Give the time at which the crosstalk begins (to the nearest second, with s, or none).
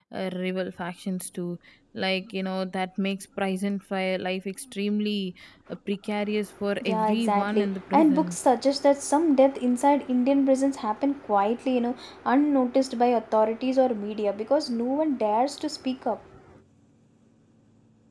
7 s